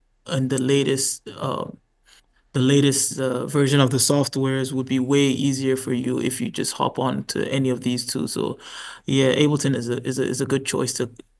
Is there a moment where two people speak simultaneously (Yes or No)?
No